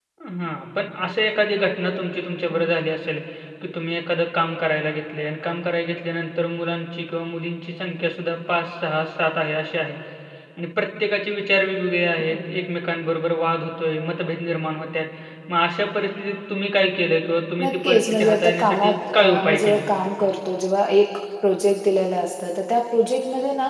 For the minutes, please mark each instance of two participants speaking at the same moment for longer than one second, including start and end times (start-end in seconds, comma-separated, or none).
17.6-19.8